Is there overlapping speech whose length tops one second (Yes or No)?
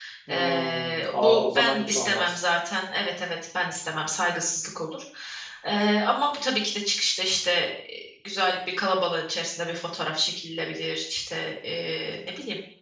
Yes